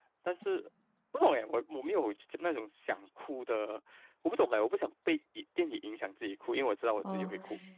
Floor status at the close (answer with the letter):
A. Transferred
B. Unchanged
A